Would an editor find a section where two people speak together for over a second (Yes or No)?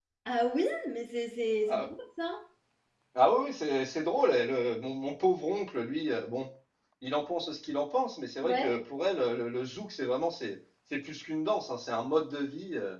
No